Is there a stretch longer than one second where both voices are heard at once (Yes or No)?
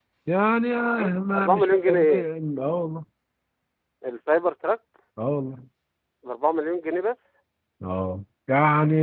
Yes